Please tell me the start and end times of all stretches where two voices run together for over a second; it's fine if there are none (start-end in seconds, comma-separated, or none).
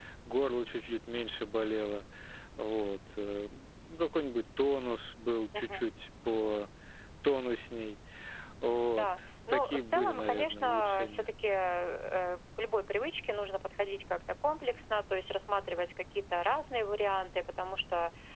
9.5-11.3